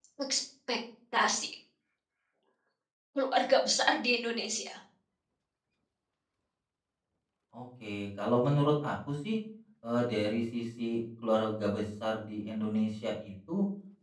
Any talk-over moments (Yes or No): No